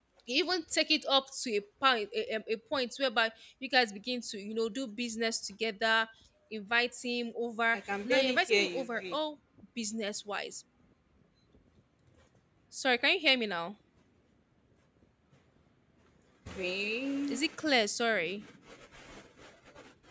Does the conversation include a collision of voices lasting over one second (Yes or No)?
Yes